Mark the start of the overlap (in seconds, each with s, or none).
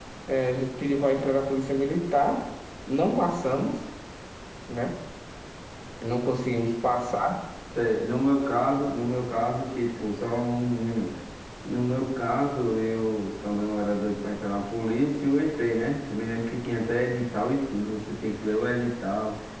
none